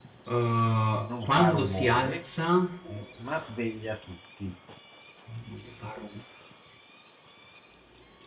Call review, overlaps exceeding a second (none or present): present